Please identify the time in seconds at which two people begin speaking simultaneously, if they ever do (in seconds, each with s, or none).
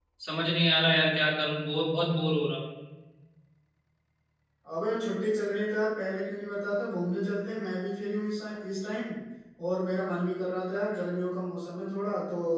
none